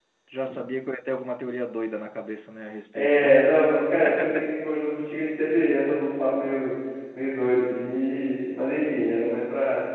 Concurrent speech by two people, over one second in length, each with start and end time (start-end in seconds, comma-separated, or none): none